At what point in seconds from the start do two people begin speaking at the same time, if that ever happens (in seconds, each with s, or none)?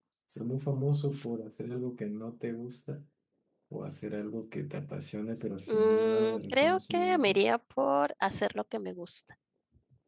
5.7 s